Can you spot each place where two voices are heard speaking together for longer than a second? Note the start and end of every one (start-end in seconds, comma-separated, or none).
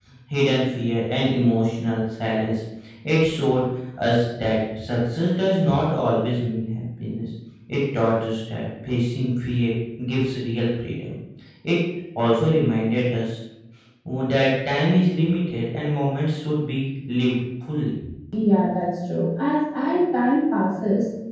none